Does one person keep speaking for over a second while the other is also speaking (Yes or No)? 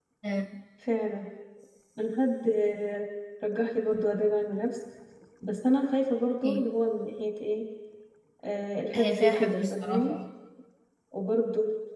Yes